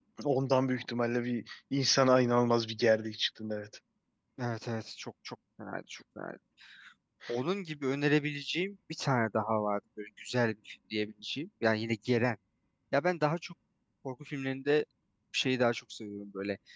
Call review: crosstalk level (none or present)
none